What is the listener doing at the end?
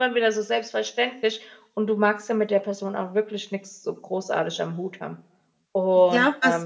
taking over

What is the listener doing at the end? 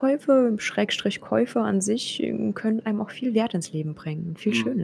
taking over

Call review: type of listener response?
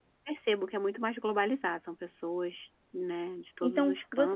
taking over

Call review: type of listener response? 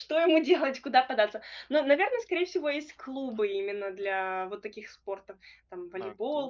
listening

